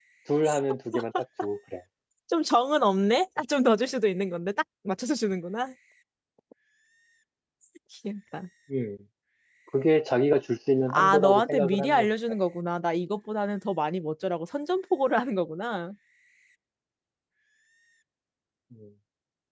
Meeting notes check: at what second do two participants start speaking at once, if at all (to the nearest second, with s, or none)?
11 s